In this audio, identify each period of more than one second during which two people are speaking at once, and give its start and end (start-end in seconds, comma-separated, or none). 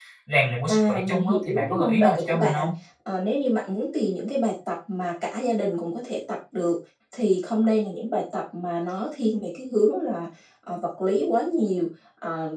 0.7-2.6